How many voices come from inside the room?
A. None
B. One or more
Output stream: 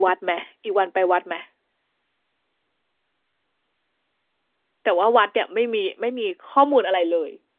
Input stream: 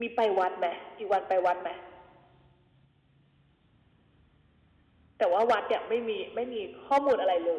A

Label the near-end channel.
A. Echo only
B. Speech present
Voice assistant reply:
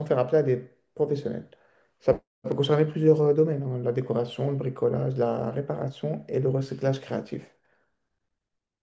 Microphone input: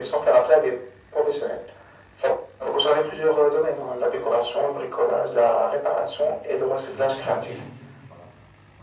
B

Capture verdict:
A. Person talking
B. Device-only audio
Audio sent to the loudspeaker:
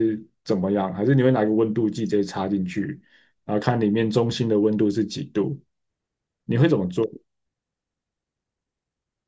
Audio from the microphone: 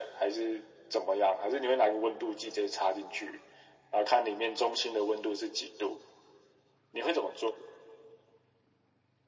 B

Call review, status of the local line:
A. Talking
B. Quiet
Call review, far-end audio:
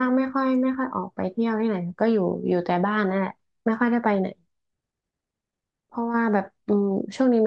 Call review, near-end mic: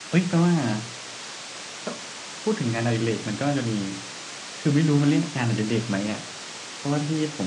A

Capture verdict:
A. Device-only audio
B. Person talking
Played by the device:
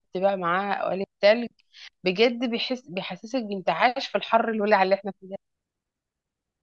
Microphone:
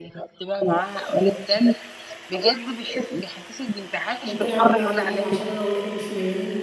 B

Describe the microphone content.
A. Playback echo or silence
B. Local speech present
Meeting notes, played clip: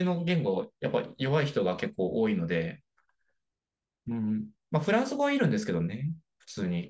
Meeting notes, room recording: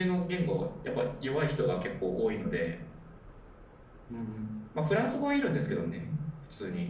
A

